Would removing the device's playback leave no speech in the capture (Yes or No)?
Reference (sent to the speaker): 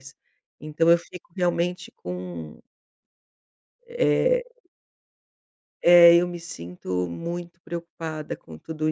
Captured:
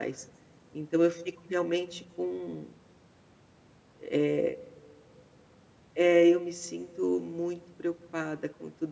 Yes